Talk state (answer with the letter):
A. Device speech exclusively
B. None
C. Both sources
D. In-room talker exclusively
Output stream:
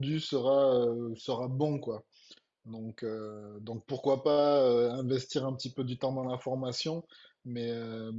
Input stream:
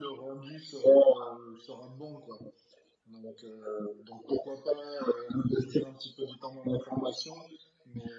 A